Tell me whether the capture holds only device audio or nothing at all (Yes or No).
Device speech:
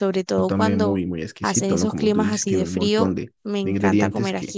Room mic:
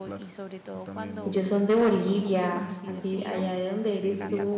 No